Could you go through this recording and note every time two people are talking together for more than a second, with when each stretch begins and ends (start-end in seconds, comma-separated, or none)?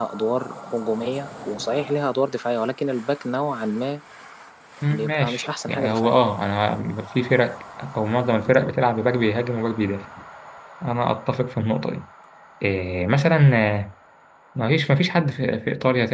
4.9-6.1